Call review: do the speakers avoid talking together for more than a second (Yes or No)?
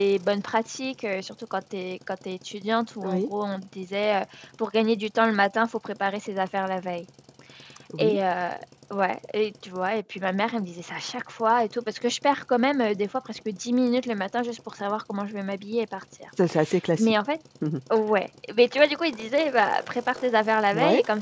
Yes